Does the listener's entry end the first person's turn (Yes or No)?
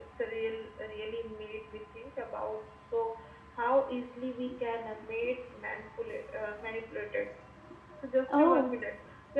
No